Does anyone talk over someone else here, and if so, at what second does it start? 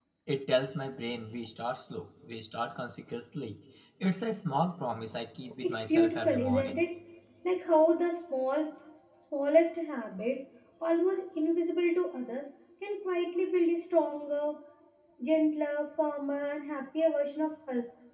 5.5 s

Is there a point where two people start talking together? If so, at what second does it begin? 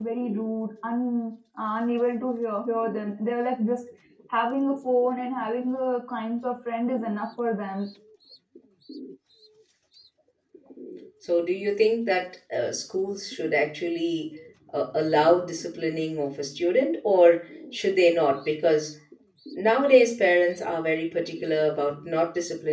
none

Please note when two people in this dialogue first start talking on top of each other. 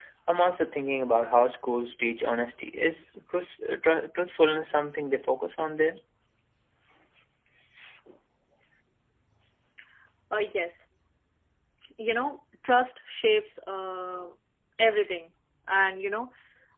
none

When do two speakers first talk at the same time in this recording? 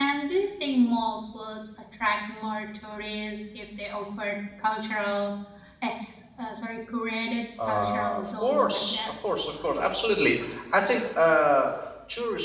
7.6 s

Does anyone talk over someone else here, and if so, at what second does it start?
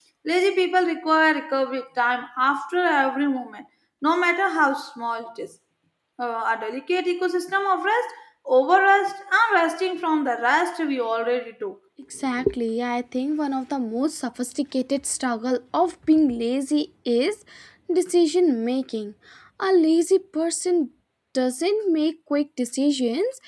none

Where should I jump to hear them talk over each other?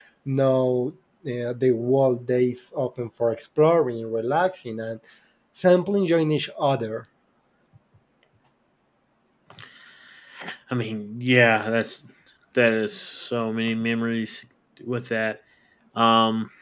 none

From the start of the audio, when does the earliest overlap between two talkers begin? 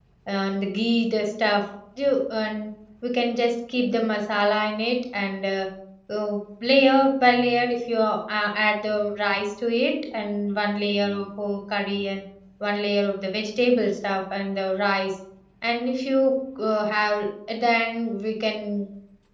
none

